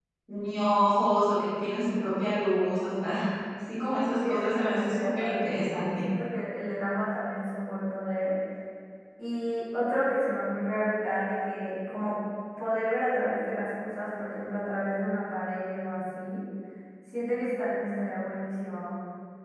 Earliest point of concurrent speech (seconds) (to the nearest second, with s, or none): 4 s